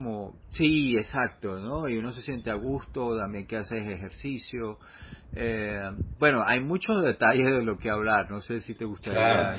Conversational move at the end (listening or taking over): taking over